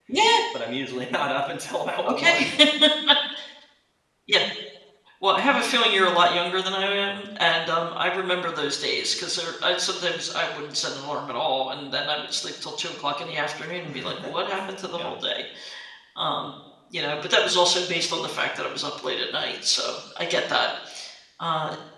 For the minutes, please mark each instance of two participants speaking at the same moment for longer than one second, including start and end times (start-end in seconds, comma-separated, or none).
none